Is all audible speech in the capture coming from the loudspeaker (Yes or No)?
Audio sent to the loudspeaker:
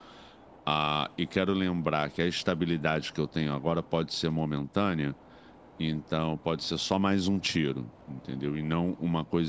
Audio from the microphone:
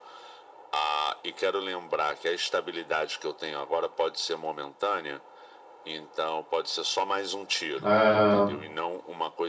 No